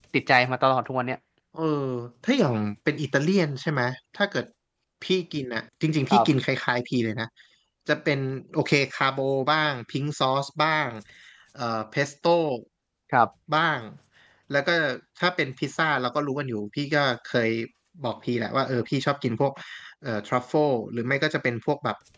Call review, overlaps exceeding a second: none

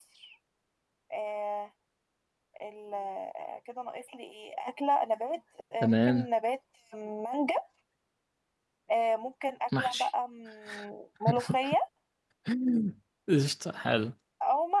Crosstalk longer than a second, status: none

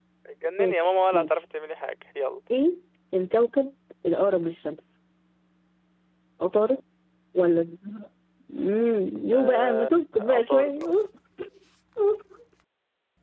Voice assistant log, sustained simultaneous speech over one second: present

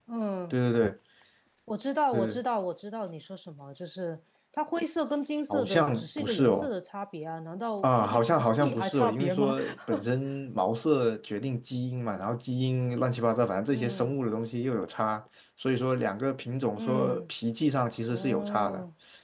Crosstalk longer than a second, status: present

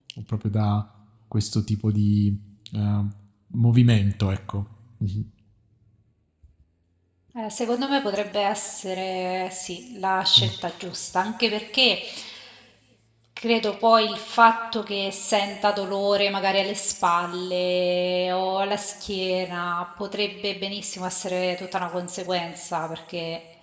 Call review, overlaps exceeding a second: none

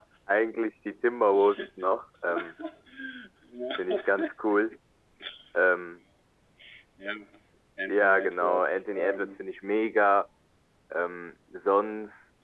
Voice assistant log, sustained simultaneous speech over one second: present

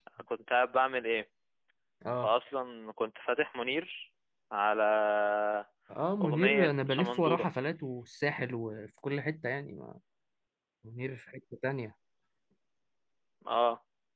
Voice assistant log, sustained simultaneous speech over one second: present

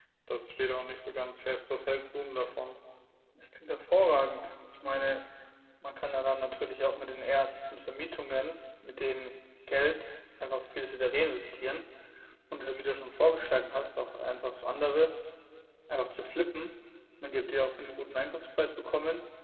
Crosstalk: none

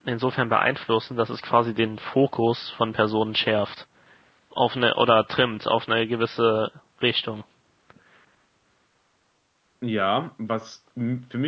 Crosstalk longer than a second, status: none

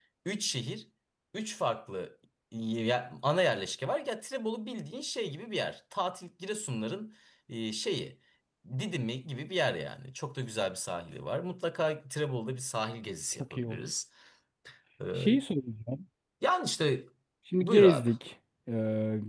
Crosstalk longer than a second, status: none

